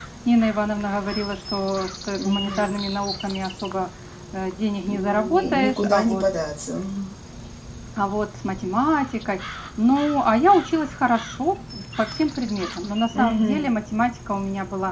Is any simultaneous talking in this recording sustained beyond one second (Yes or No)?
Yes